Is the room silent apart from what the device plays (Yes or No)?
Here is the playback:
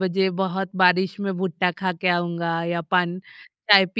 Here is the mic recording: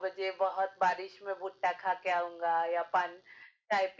Yes